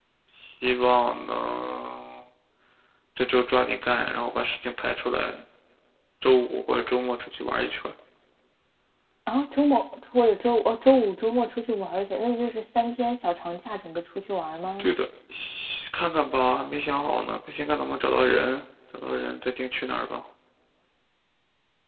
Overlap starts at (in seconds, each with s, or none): none